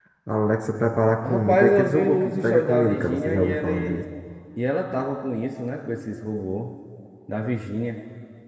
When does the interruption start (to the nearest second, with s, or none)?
1 s